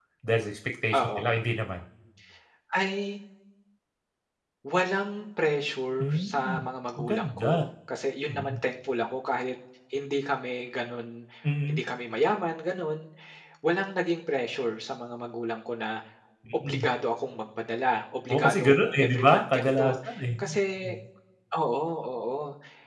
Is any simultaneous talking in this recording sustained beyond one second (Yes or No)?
Yes